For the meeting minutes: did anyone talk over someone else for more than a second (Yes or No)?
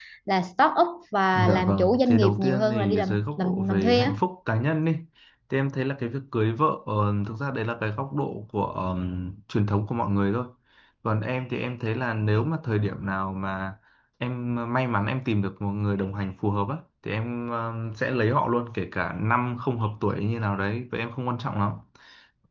Yes